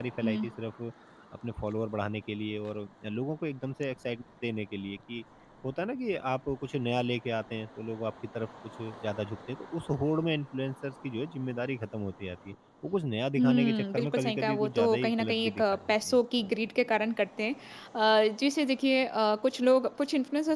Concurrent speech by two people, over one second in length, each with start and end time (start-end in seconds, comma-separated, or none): 13.4-16.2